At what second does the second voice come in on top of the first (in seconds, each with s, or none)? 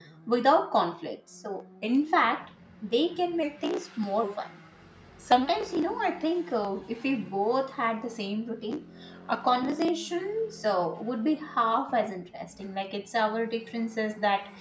none